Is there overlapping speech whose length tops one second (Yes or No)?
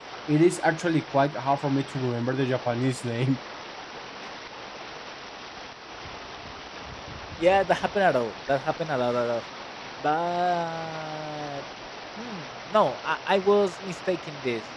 No